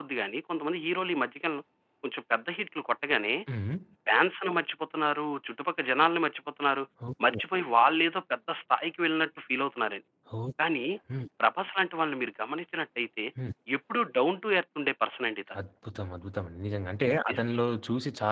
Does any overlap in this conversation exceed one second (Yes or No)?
No